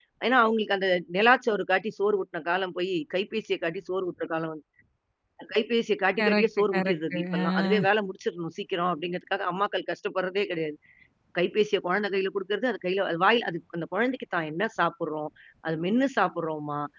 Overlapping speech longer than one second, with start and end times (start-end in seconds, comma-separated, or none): 6.2-7.9